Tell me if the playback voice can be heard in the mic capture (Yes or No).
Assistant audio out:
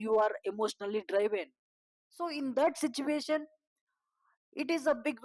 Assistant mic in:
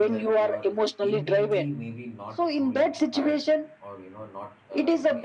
Yes